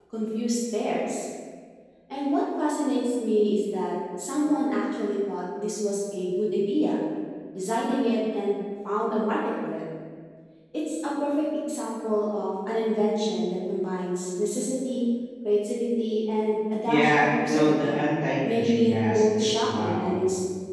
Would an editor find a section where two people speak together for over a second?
Yes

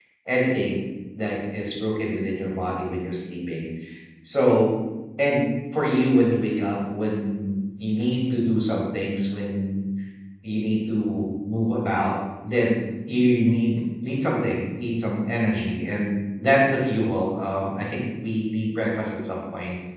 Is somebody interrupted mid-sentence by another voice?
No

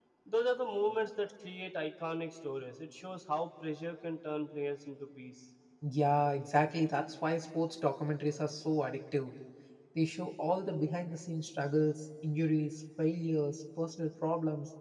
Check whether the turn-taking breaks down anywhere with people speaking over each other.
No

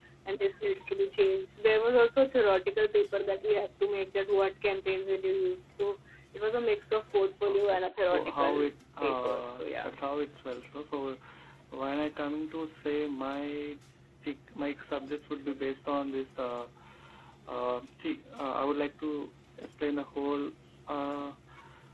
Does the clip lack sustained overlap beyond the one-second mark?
No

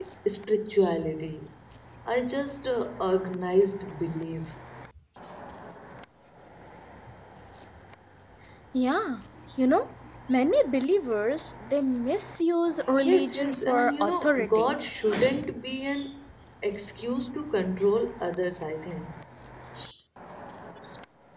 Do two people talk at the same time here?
Yes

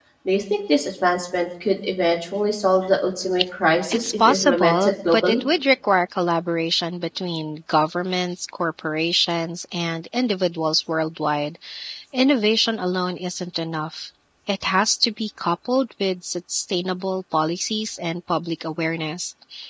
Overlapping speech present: Yes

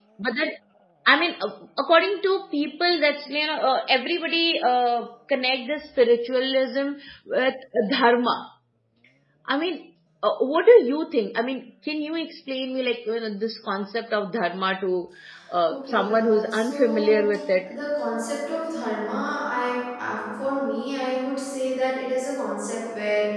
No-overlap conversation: No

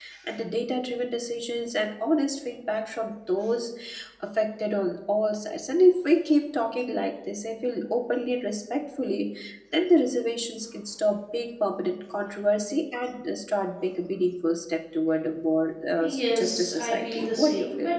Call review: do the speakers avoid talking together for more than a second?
No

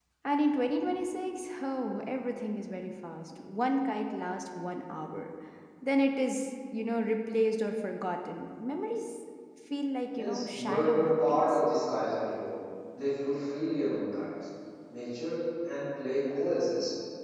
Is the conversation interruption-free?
No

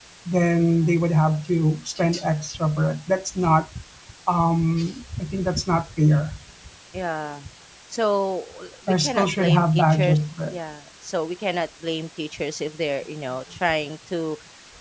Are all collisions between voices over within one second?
No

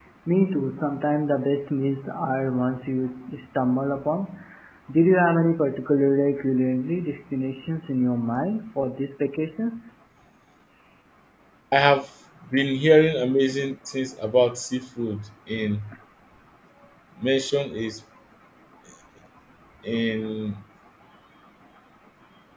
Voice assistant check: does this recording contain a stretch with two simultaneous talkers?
No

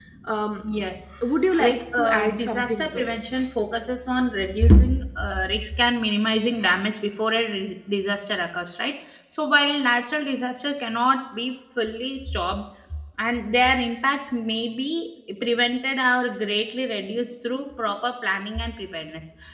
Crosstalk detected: Yes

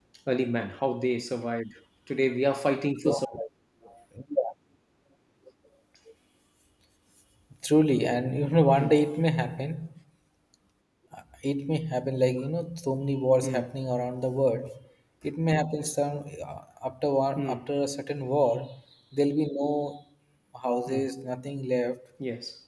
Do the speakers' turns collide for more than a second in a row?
No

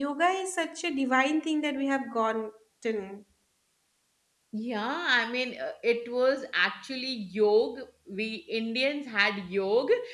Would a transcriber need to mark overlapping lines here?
No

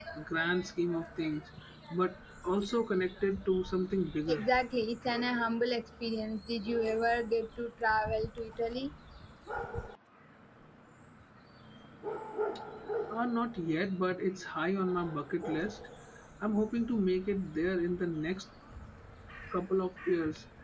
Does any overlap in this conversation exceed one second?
No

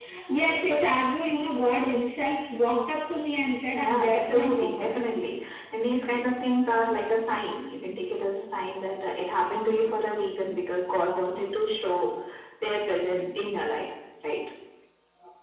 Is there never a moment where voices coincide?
No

